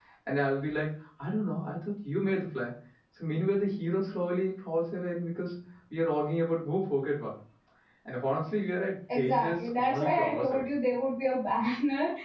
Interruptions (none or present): present